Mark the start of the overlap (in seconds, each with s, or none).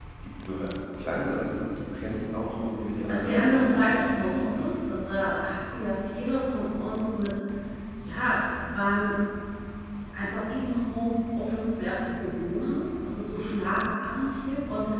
3.1 s